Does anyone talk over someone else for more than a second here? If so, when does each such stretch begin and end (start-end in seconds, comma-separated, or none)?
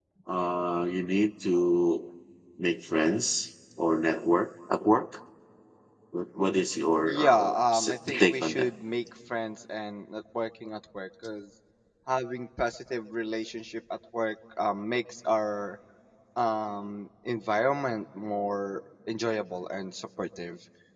7.1-8.7